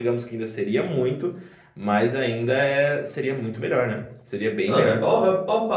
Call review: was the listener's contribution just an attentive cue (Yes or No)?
No